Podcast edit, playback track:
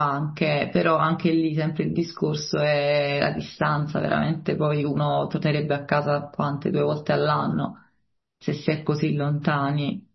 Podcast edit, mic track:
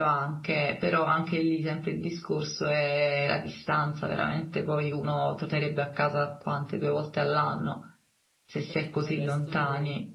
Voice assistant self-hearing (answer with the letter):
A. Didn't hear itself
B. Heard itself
B